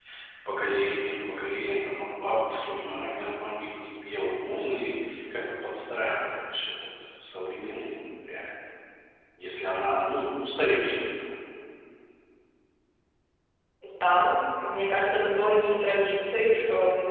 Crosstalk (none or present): none